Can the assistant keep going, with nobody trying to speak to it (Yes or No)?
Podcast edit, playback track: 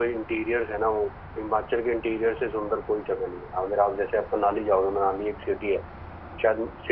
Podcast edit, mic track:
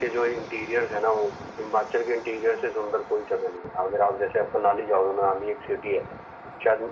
Yes